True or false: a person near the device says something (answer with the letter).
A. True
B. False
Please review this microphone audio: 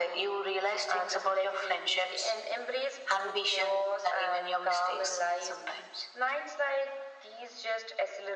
B